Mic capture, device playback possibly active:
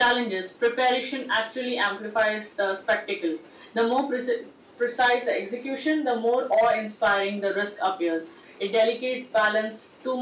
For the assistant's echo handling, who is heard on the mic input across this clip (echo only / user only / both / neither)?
echo only